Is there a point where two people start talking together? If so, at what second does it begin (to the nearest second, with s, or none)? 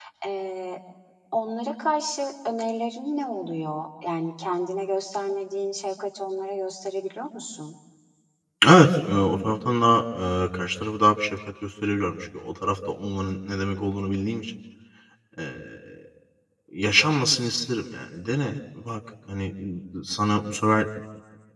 none